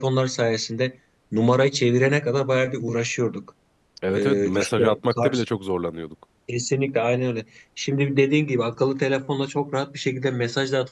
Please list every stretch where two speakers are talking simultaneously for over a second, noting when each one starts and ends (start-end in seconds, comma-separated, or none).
4.2-5.4